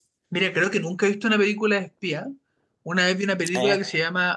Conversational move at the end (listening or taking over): listening